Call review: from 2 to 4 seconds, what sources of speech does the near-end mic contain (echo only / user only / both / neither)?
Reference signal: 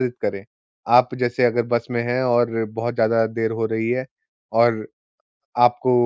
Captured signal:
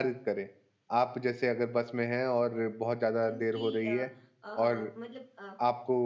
both